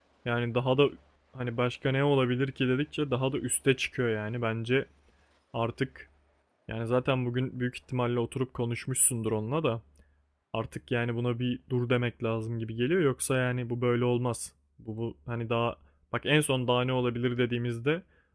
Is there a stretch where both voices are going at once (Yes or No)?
No